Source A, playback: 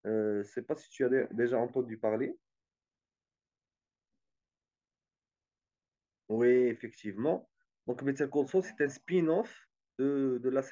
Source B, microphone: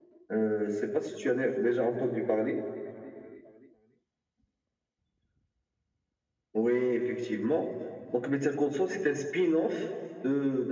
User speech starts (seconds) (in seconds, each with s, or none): none